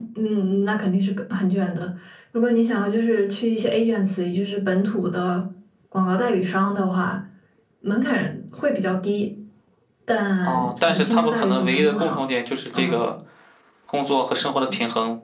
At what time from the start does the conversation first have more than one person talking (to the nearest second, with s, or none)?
10 s